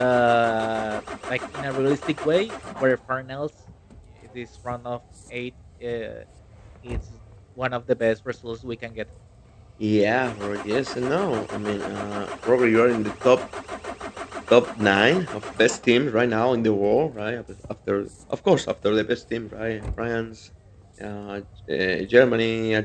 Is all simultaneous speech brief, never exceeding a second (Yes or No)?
Yes